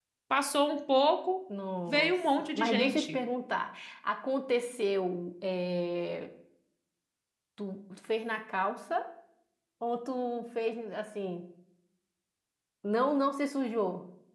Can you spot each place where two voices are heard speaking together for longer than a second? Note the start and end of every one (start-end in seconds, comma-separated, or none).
1.9-3.2